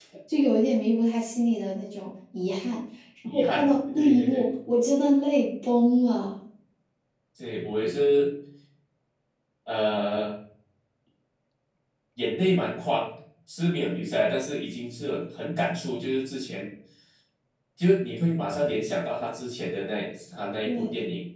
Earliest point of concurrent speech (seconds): 3.3 s

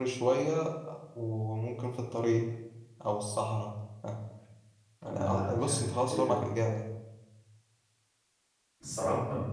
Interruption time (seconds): 5.0 s

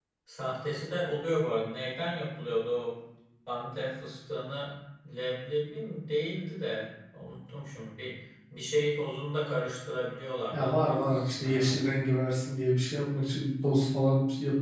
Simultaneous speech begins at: 10.5 s

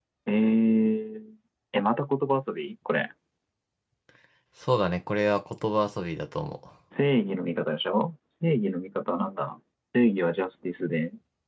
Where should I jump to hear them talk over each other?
none

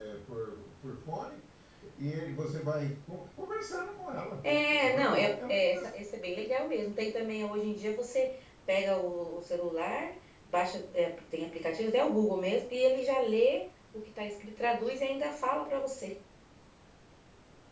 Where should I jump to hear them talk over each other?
4.4 s

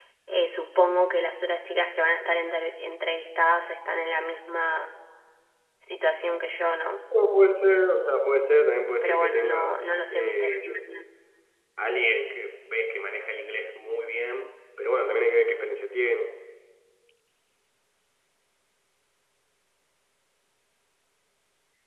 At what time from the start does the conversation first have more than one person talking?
9.0 s

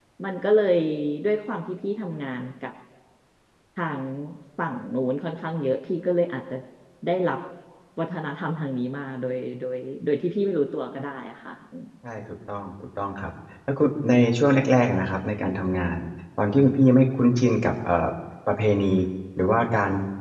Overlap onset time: none

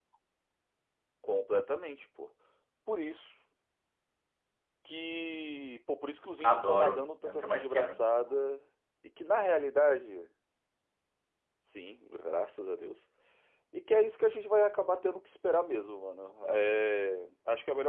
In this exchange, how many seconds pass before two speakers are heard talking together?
6.4 s

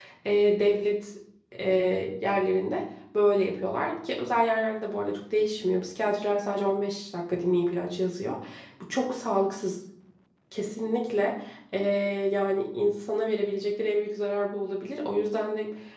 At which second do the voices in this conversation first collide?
none

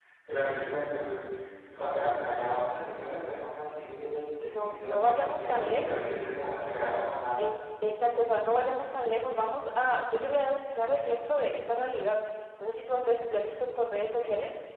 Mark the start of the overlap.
4.2 s

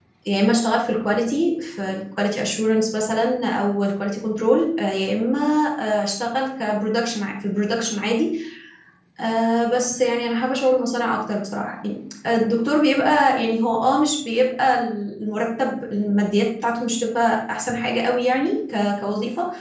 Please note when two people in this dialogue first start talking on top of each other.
none

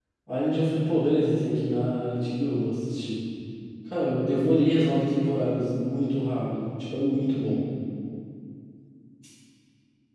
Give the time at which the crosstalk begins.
none

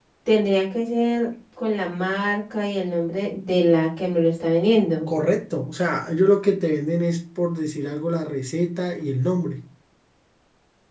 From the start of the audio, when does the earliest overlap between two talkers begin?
none

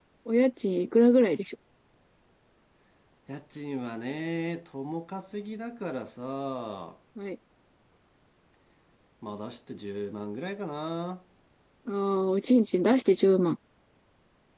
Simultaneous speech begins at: none

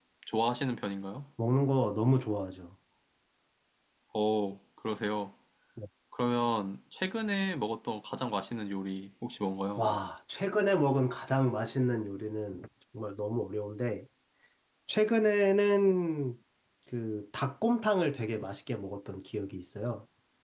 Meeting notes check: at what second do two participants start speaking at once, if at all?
none

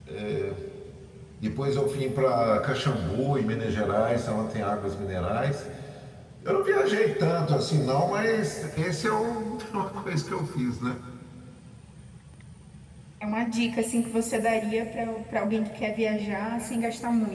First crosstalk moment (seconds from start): none

